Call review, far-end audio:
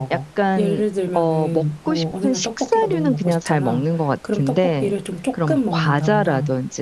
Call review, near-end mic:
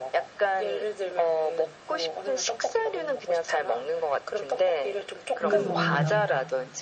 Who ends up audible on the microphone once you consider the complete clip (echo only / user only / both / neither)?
both